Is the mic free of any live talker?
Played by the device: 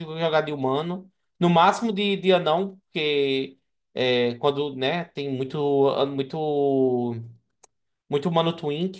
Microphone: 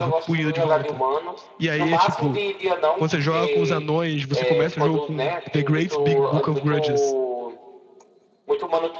No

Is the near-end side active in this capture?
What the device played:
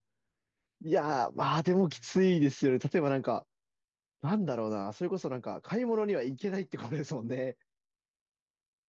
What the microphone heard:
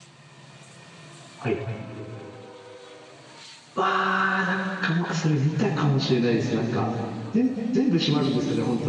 Yes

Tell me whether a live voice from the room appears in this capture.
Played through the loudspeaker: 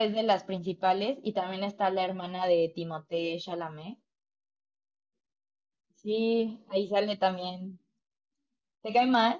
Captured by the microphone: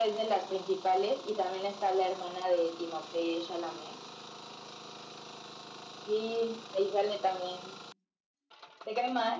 No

